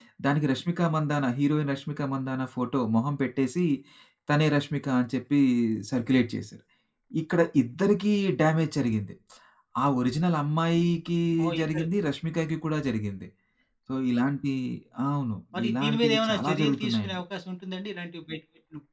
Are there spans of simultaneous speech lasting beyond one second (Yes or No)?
Yes